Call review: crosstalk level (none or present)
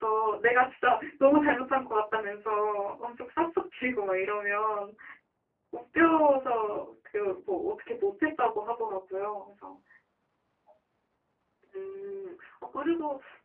none